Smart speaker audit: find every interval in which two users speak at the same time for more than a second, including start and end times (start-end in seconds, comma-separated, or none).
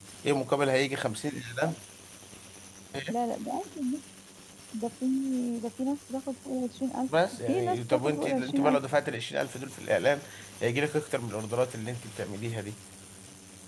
7.1-8.8